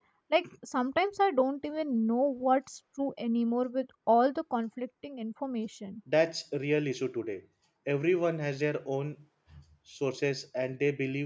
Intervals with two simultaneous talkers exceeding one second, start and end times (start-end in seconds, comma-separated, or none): none